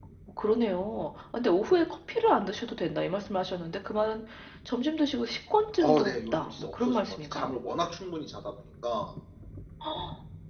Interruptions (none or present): present